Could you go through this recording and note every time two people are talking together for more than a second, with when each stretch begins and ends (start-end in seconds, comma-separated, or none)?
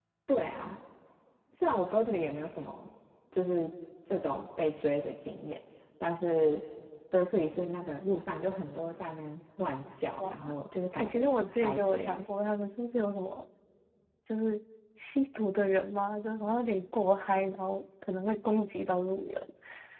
11.0-12.2